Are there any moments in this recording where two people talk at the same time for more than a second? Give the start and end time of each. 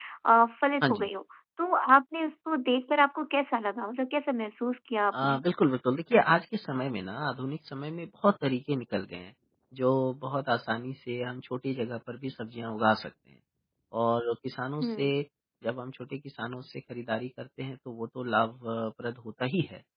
none

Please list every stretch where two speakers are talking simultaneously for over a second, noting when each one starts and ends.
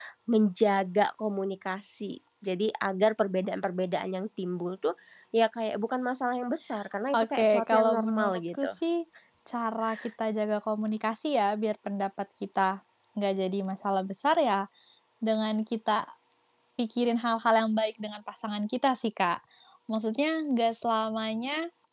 7.2-8.7

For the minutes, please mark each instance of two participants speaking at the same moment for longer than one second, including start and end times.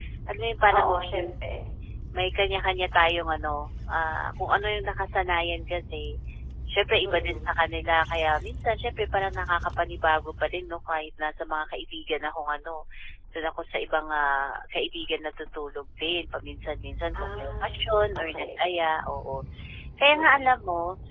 17.1-18.6

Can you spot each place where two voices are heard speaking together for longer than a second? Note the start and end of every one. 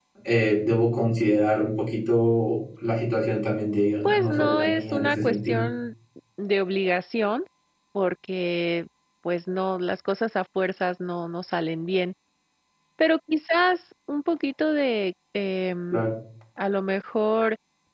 4.0-5.6

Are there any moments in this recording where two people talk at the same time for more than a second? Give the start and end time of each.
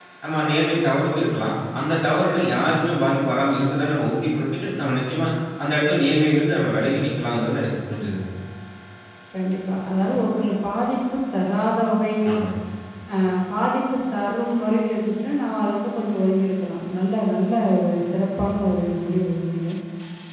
none

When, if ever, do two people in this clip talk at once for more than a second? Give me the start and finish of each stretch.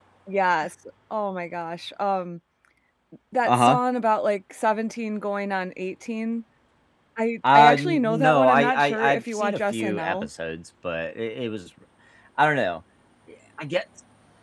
7.5-10.3

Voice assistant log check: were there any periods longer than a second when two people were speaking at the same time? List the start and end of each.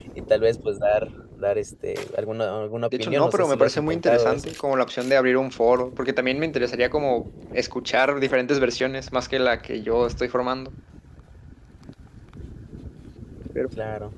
3.0-4.5

